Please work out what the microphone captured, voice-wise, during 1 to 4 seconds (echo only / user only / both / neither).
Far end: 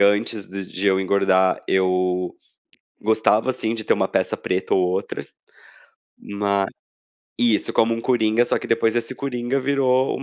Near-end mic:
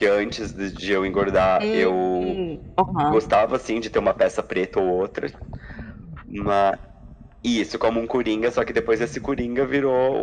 both